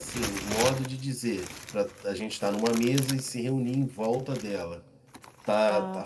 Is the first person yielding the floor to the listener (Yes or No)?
No